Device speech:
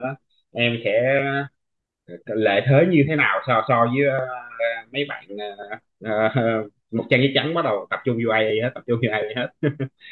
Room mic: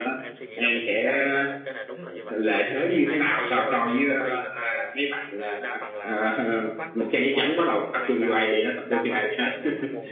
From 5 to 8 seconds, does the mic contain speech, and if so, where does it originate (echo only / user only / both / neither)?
both